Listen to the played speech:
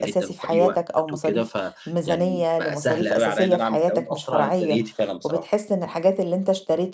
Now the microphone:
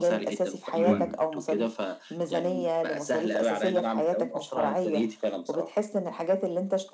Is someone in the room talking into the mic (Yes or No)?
Yes